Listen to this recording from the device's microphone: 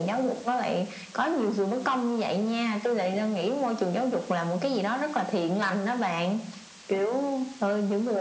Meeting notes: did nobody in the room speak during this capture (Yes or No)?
Yes